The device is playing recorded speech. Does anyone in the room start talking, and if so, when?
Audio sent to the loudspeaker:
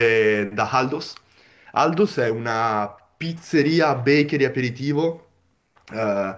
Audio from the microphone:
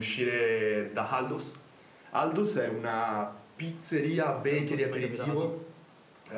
4.4 s

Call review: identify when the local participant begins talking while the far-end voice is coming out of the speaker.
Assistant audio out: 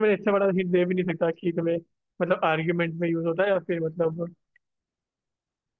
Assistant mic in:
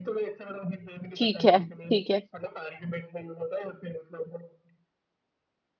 1.2 s

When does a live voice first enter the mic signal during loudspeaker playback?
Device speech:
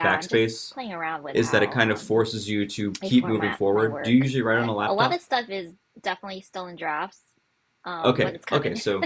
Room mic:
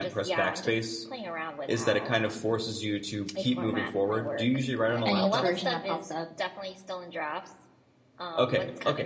5.0 s

